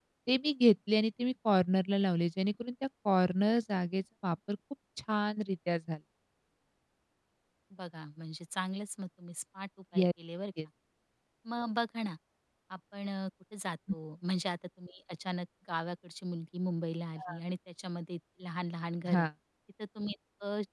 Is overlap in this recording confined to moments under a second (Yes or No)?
Yes